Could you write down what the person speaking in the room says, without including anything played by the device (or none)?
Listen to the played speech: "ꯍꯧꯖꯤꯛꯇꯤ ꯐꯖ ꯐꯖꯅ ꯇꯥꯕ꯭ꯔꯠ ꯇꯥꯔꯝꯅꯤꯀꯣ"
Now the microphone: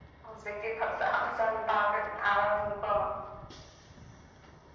none